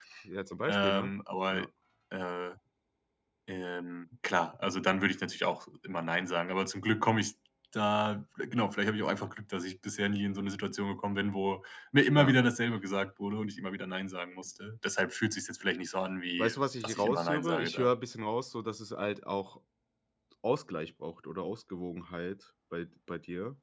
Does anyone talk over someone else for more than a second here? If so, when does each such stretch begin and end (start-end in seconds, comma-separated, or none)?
16.4-17.9